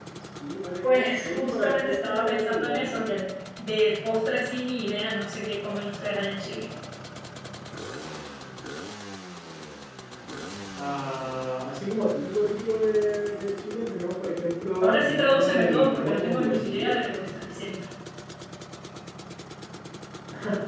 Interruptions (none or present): present